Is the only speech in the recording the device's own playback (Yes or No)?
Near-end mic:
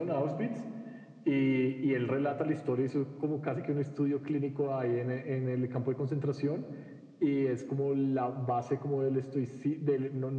Yes